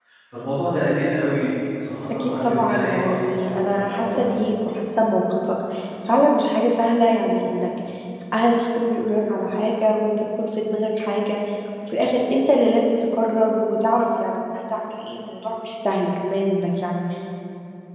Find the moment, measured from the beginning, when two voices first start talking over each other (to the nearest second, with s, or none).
2 s